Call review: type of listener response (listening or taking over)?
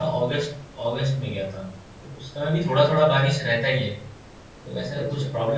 listening